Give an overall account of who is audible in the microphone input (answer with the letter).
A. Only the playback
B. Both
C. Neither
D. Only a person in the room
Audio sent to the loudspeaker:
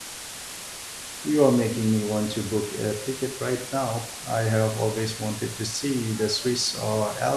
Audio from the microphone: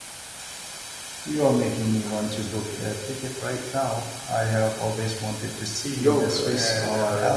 B